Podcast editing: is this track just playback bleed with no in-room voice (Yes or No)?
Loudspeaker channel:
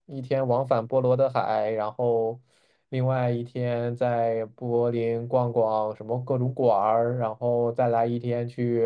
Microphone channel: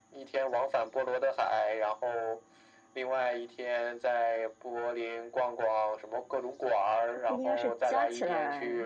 No